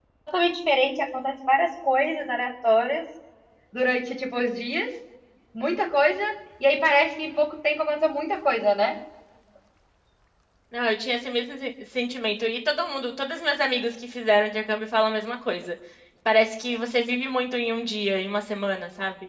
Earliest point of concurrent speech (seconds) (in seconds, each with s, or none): none